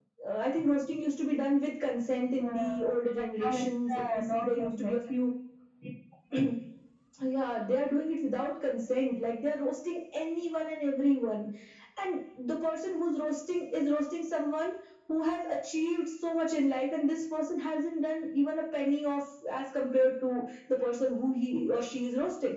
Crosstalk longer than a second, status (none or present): present